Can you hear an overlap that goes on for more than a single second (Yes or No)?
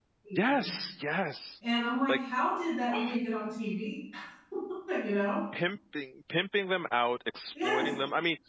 No